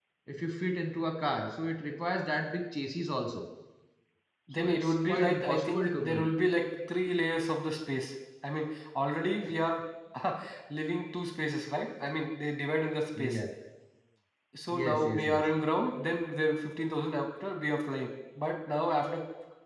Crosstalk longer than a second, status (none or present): present